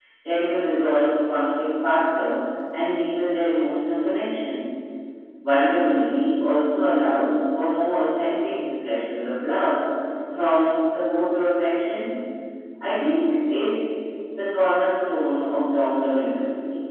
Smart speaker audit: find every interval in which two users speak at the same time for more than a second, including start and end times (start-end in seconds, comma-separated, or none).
none